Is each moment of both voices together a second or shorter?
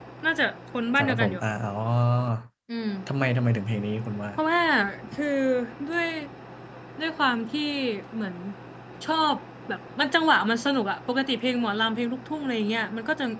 Yes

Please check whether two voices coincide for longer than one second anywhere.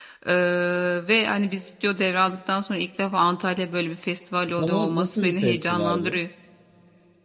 Yes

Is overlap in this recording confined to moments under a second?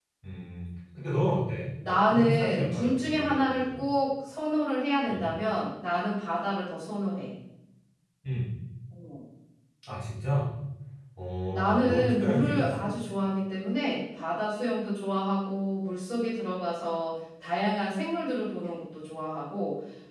No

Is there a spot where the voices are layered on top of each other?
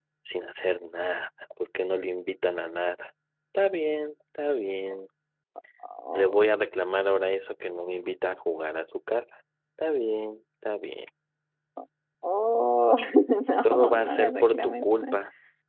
Yes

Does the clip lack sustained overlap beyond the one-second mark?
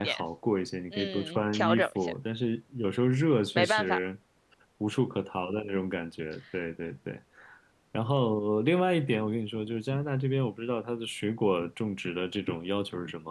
No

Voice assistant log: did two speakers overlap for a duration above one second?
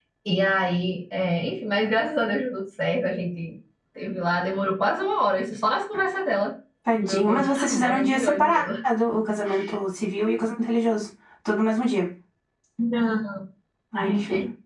Yes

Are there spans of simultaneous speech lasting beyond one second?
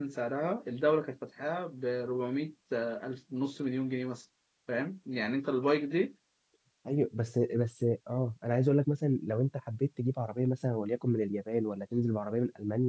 No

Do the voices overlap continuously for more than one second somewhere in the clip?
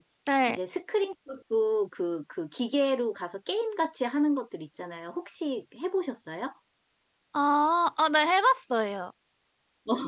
No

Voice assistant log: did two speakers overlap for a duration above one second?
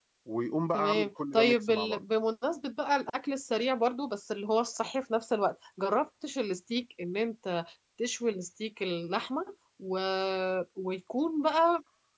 Yes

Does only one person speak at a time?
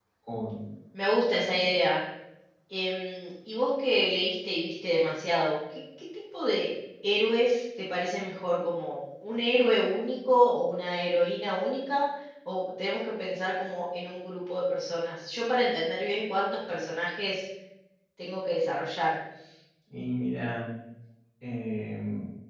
Yes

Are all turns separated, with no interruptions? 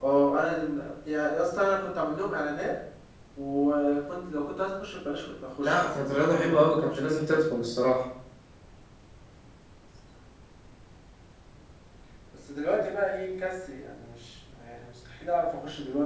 No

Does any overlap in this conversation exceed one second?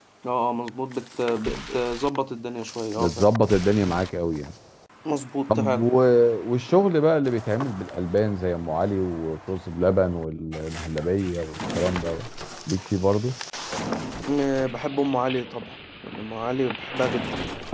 No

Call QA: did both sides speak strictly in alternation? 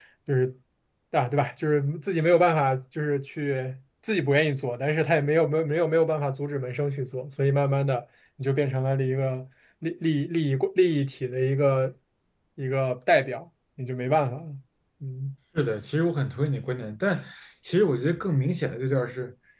Yes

